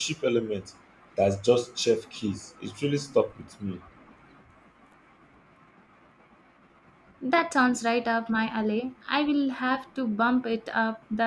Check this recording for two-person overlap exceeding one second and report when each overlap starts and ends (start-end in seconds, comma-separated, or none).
none